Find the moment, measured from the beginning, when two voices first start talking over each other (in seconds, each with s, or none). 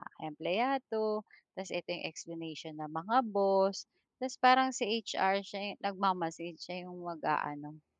none